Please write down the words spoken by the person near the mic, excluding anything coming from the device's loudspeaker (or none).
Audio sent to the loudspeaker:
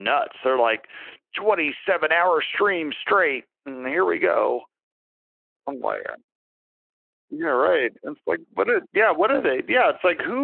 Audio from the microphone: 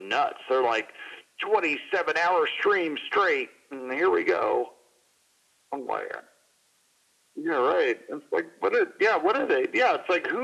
none